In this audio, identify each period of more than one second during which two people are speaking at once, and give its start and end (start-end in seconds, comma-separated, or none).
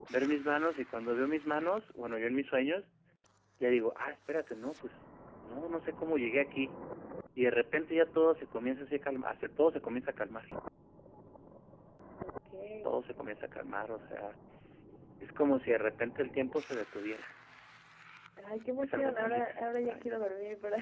18.8-20.1